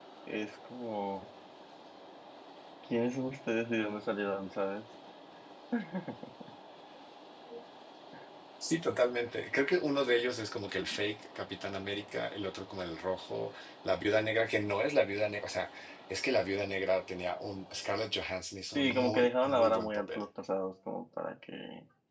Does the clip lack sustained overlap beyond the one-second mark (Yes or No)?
No